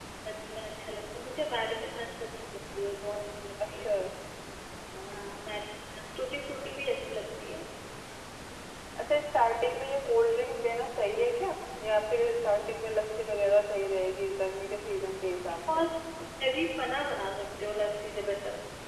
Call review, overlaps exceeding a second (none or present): none